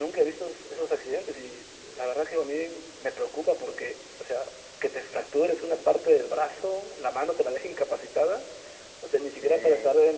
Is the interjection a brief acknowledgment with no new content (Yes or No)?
Yes